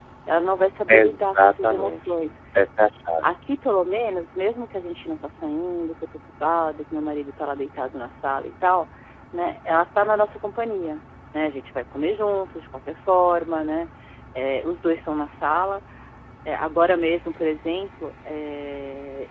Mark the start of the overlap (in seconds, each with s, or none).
0.9 s